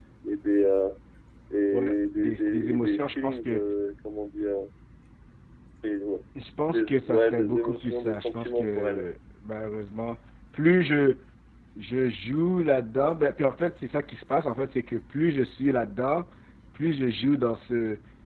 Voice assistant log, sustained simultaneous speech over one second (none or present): present